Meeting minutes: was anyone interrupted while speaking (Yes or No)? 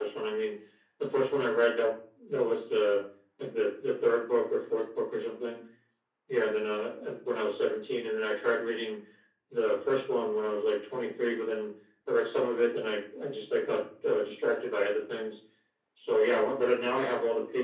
No